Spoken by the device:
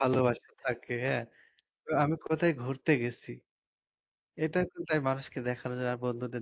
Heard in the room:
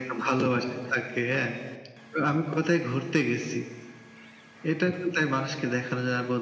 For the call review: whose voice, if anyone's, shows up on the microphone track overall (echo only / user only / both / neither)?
echo only